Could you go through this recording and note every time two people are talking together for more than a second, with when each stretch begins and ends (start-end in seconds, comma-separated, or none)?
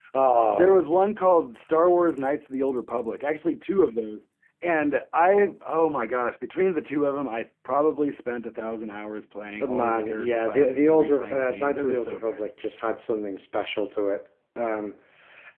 9.7-12.5